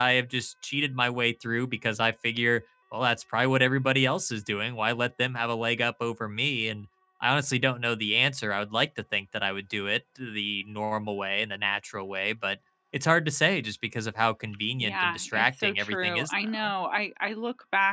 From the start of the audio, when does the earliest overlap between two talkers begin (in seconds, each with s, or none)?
14.8 s